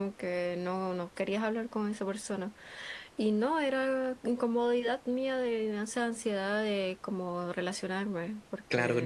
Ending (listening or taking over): taking over